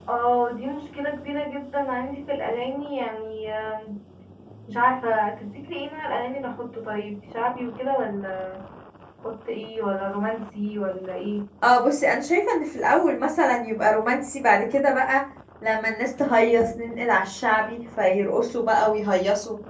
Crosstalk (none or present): none